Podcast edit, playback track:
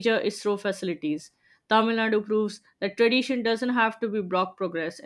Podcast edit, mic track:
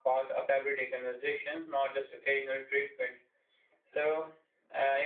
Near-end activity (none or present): present